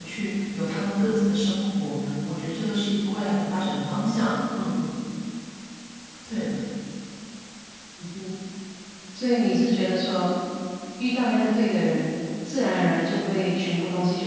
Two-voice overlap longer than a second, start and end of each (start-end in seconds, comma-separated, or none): none